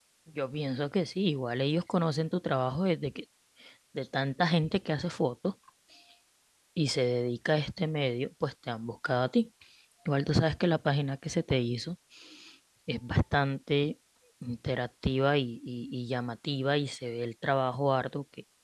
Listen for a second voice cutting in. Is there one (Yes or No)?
No